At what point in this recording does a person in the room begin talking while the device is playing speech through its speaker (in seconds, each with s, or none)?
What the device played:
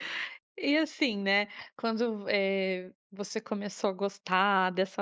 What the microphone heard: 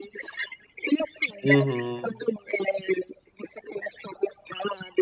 1.4 s